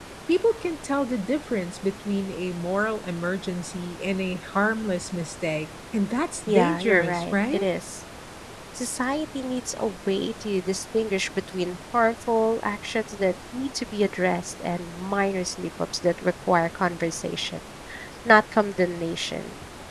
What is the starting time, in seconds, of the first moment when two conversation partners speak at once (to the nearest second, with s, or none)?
6 s